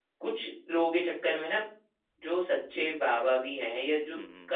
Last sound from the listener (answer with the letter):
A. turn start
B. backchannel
B